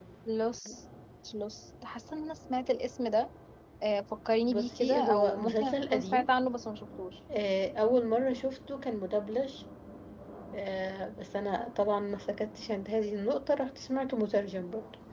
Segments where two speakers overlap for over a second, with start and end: 4.5-6.3

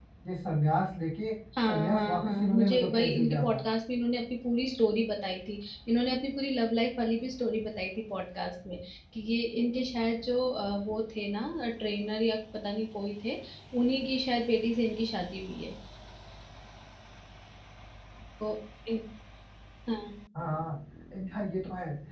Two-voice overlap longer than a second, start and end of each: 1.7-3.6

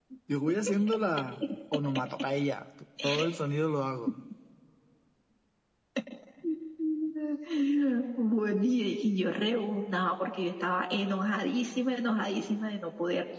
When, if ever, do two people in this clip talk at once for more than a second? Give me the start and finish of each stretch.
none

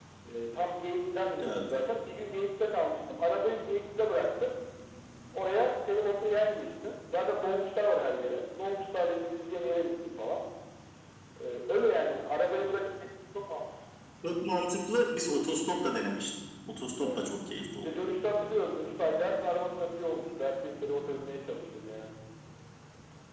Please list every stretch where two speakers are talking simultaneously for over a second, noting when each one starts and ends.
none

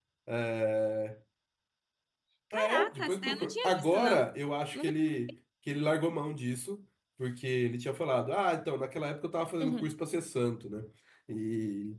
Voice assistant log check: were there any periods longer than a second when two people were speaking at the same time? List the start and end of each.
2.5-4.2

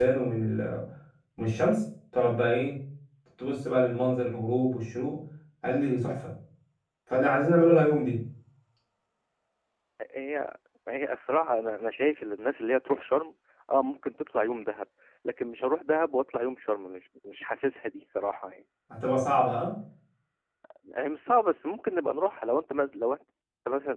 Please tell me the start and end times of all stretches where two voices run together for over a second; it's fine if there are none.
none

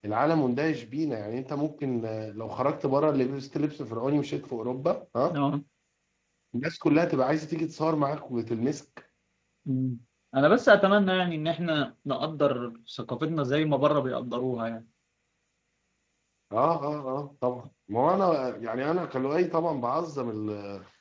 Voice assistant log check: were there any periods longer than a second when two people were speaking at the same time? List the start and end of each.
none

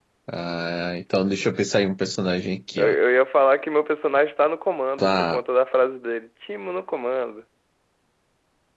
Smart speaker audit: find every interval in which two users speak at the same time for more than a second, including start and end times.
none

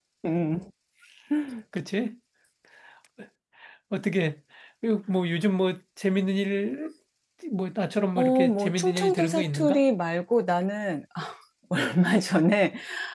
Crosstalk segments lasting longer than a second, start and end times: 8.2-9.8

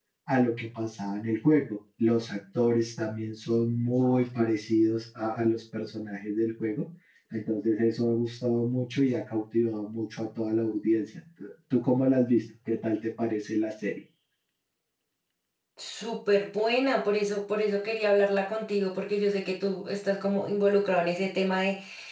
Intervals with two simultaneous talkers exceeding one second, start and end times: none

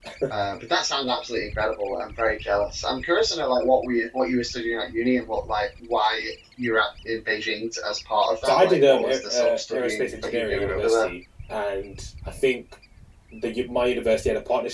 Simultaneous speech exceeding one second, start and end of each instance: 8.4-11.1

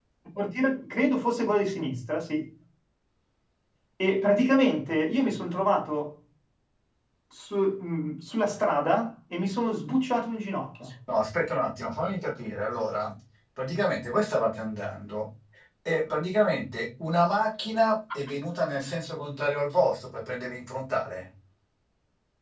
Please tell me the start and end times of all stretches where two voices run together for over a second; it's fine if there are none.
none

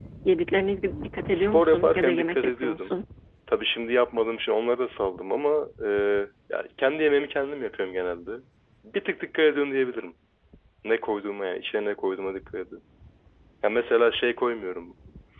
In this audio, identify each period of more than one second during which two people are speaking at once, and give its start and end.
1.3-3.0

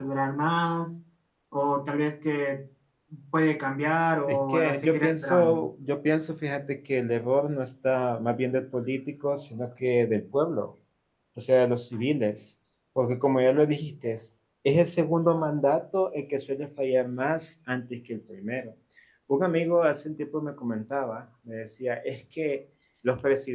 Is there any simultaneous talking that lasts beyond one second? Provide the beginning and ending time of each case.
4.3-5.6

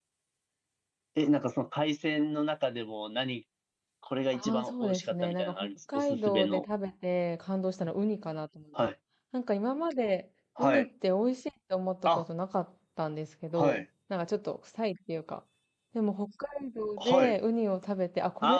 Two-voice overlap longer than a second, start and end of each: 4.3-6.7

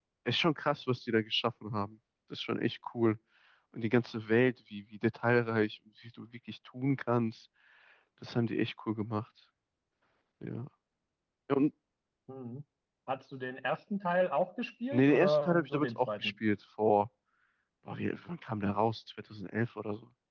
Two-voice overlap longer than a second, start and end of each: 14.9-16.3

